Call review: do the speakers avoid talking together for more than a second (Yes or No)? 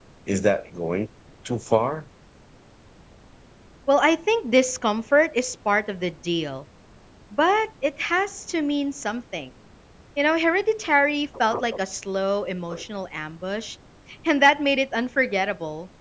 Yes